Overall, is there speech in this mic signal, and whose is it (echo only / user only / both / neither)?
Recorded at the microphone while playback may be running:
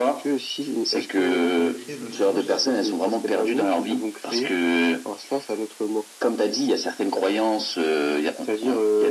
both